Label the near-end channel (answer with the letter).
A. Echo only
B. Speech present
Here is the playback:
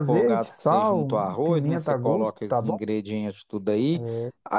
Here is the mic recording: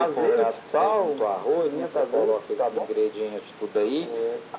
A